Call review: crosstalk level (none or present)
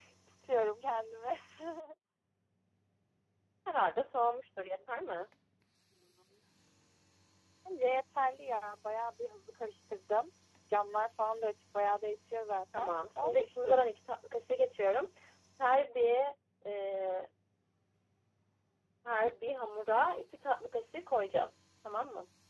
present